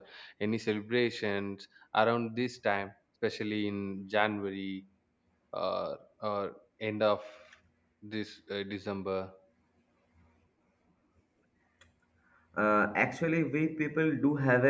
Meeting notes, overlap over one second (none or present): none